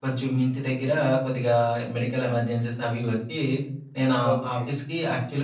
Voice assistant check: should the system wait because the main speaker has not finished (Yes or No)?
Yes